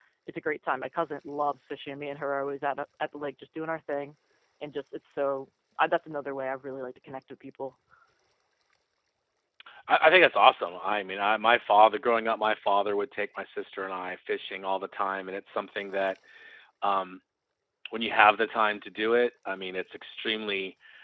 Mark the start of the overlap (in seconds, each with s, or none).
none